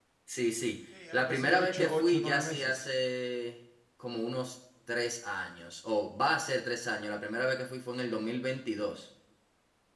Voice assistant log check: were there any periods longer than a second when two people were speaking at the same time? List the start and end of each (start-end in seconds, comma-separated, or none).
1.1-2.9